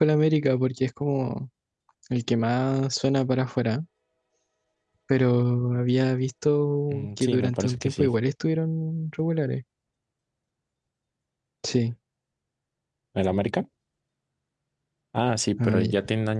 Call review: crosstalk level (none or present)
present